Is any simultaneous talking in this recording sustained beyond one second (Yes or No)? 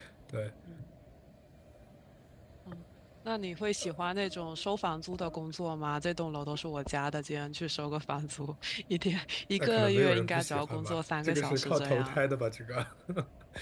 Yes